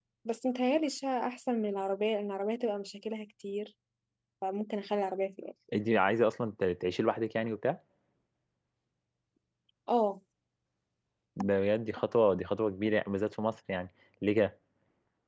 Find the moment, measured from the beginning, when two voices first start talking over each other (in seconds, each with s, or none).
none